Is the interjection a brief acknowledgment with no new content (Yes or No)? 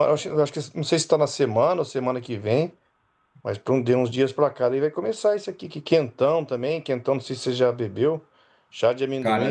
Yes